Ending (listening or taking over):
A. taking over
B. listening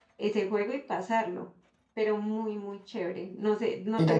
A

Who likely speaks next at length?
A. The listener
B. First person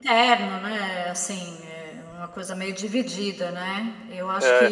B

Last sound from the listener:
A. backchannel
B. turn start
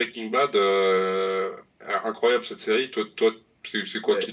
B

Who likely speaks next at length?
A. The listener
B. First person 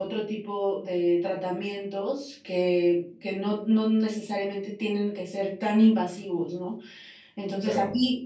B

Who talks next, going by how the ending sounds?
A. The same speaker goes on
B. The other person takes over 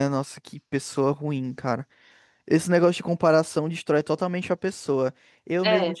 A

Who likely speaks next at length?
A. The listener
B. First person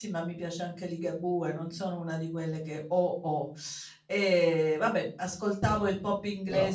B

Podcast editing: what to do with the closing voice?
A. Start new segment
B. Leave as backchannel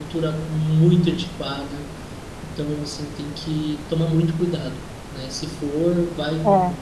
B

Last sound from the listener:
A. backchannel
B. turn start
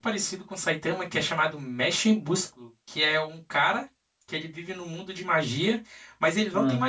A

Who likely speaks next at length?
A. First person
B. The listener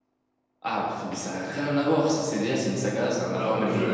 B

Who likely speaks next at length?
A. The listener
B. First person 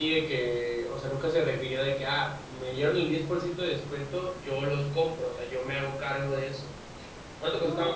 B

